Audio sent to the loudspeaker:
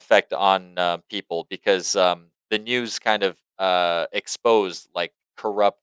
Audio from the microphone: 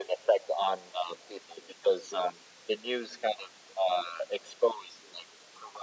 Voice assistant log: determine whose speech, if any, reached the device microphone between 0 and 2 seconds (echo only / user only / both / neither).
echo only